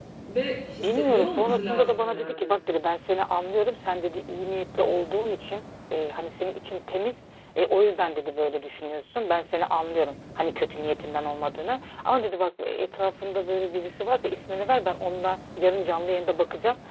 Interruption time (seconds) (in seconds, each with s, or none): 0.8 s